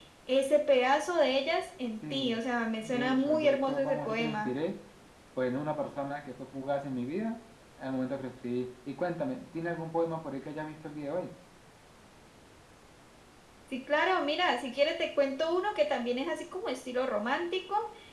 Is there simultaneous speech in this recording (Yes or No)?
Yes